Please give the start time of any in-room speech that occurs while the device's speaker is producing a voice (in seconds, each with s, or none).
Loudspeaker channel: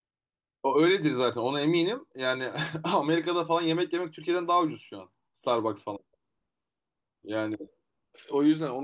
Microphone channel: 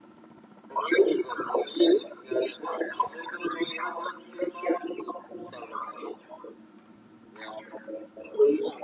none